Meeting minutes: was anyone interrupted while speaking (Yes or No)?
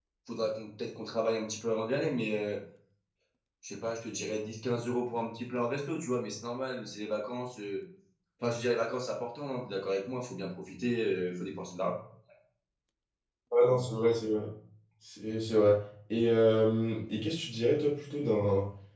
No